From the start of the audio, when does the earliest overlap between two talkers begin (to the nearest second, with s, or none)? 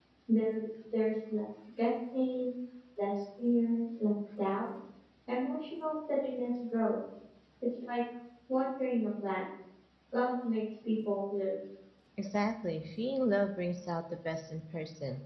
none